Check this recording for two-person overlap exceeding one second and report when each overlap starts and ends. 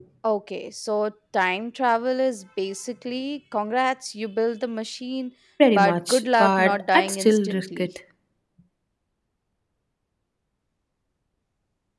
5.7-7.9

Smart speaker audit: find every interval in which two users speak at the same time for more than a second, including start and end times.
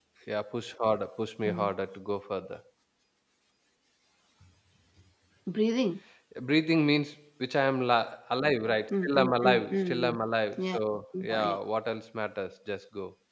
8.9-10.2

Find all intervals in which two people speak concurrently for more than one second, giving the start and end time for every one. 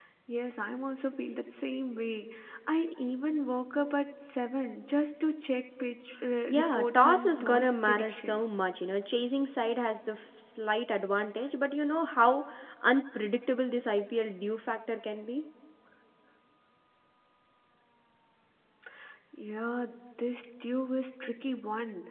6.5-8.5

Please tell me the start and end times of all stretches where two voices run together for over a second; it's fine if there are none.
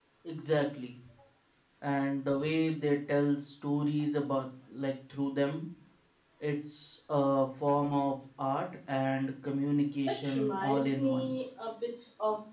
10.1-11.3

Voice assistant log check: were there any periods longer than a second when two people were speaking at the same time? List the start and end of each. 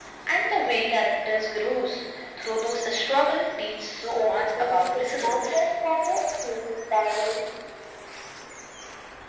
4.1-5.8

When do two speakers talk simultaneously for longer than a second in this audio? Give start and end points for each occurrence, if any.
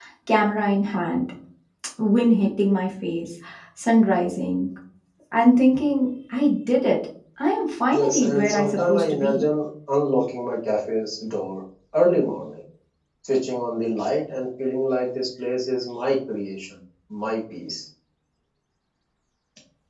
7.9-9.4

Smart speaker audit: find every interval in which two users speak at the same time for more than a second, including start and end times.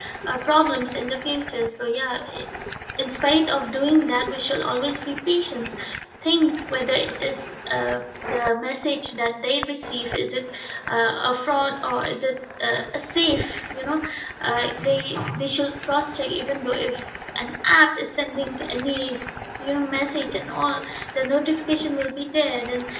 none

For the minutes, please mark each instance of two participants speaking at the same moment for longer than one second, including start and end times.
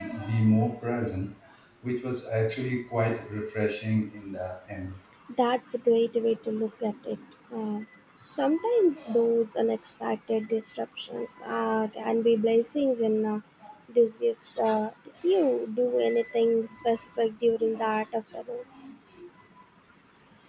none

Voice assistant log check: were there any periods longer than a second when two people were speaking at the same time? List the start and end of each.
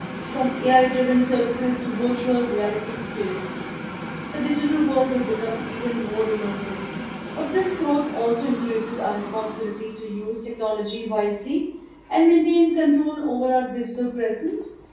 none

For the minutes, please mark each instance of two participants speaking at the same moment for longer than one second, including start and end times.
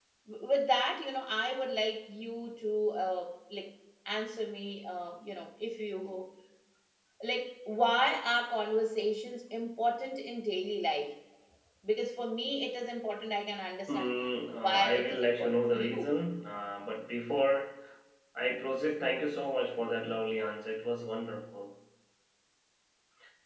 14.7-16.0

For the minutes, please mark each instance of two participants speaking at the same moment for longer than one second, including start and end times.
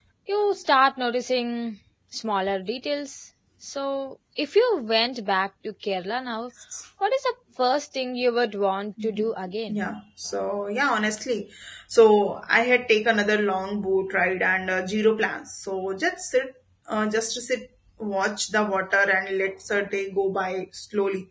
none

